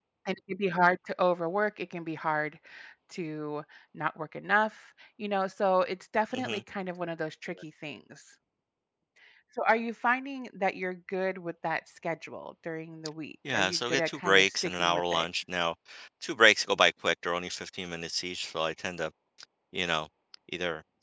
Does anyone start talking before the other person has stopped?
Yes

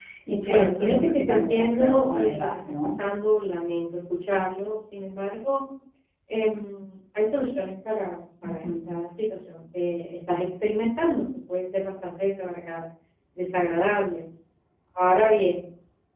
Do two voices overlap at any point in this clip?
Yes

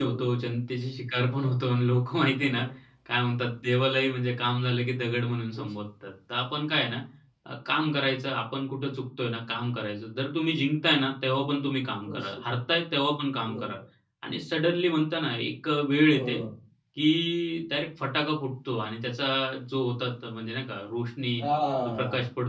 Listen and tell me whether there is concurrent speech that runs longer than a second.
No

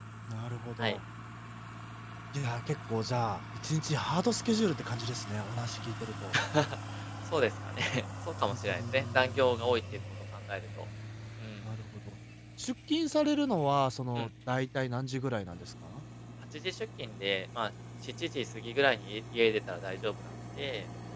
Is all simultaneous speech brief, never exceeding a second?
No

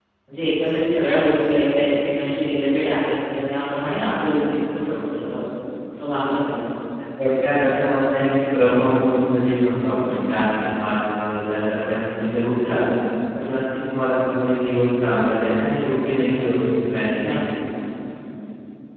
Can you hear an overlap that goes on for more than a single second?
No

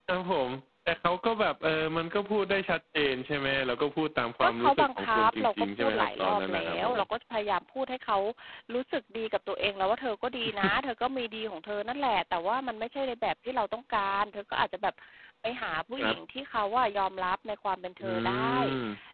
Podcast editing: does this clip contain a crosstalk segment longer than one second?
Yes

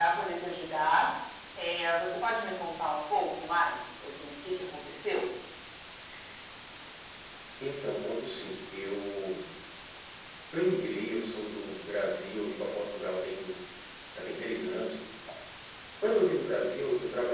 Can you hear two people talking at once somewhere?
No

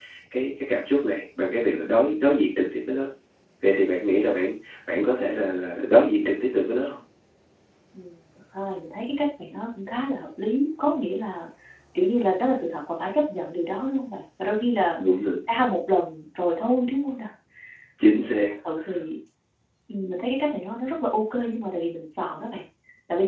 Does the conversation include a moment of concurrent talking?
No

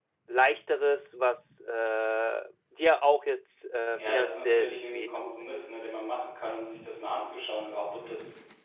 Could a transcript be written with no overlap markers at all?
No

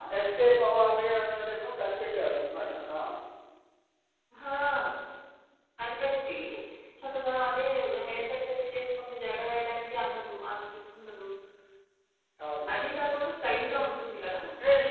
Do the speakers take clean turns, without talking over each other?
Yes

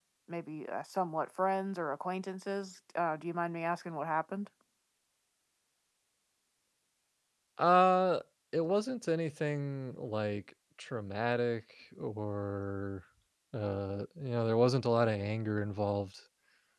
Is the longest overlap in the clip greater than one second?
No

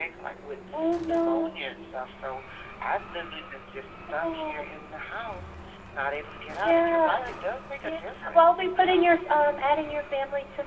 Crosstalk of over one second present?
Yes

